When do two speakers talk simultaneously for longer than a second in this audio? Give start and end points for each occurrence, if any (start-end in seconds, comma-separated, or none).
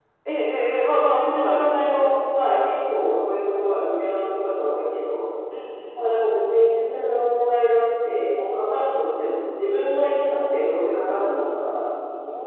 0.9-2.1